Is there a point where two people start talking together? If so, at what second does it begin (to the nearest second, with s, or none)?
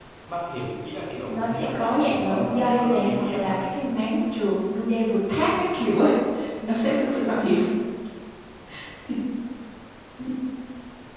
1 s